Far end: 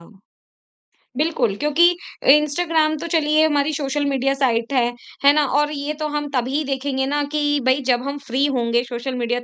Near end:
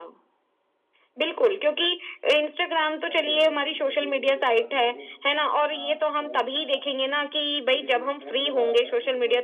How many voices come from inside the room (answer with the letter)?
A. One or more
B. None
A